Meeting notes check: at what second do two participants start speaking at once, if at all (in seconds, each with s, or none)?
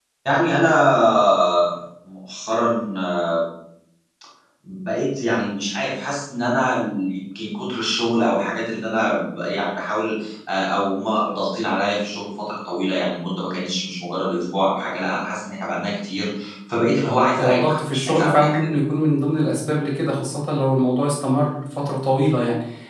17.4 s